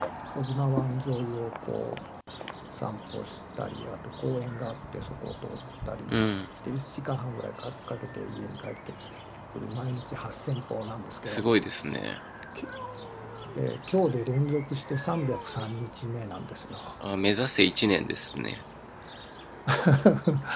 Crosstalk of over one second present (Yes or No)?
No